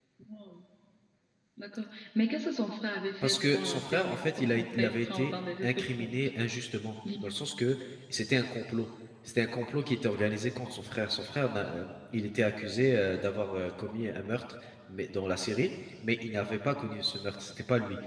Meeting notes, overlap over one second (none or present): present